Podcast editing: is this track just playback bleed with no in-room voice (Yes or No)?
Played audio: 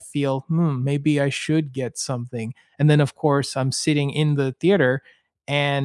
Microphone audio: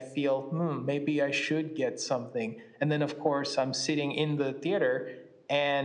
Yes